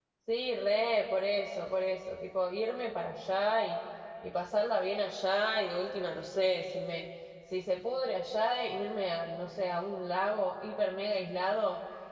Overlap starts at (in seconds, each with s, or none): none